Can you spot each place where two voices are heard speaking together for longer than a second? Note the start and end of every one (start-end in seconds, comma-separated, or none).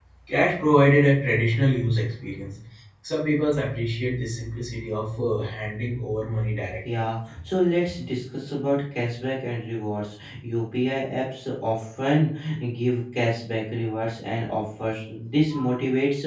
none